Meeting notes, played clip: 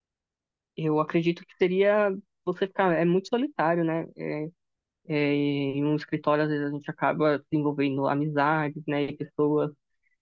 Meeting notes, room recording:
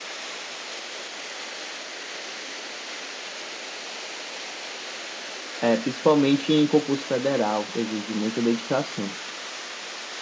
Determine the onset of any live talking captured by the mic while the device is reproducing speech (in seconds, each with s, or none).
5.6 s